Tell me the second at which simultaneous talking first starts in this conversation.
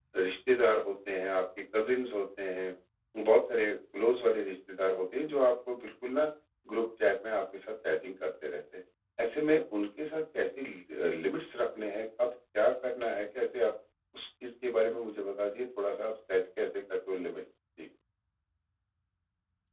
none

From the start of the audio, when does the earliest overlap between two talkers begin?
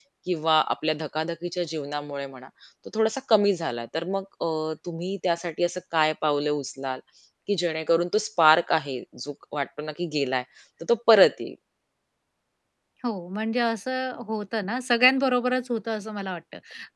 none

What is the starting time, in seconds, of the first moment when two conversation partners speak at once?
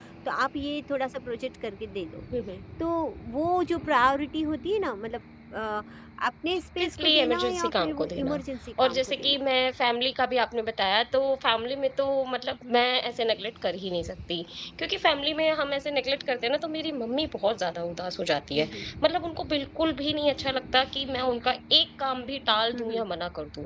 6.8 s

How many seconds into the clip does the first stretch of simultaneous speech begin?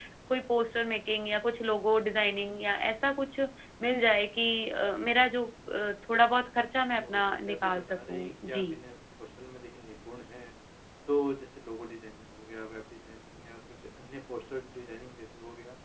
7.0 s

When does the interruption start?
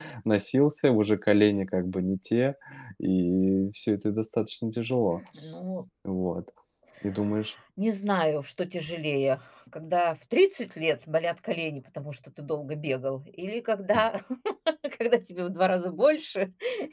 none

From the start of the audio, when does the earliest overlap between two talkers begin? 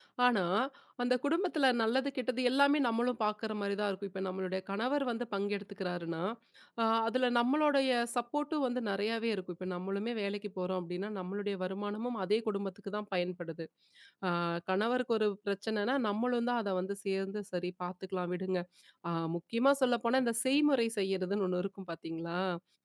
none

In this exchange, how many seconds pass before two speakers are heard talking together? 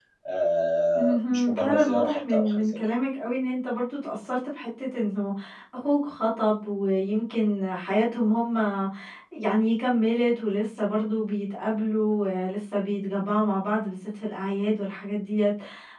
1.0 s

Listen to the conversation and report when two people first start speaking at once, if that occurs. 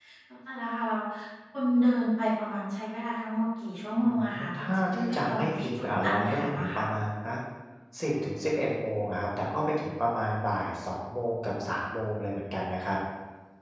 4.0 s

